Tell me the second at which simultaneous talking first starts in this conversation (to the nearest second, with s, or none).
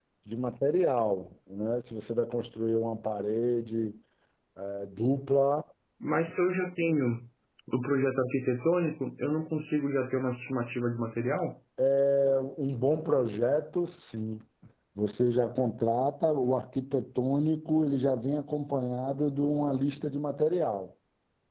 none